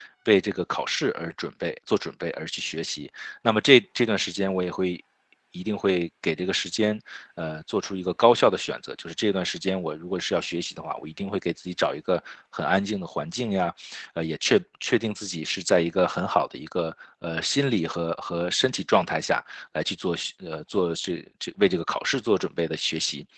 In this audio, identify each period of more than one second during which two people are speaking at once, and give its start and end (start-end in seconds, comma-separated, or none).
none